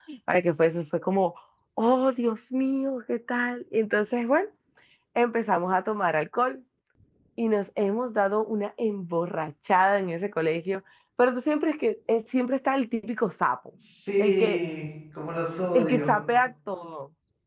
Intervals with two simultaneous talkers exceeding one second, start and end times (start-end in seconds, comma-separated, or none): none